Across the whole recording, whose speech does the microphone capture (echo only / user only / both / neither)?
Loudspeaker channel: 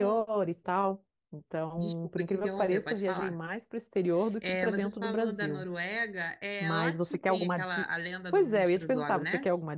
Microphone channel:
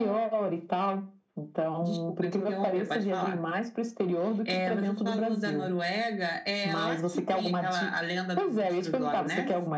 echo only